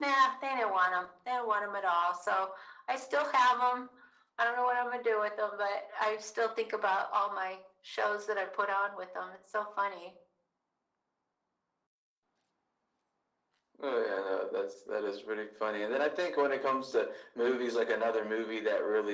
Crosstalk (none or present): none